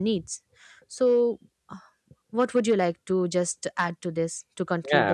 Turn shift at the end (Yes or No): Yes